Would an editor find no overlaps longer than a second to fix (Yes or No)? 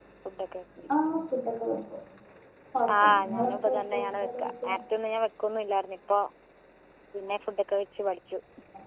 No